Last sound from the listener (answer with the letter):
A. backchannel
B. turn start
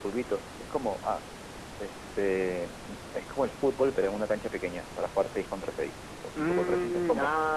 B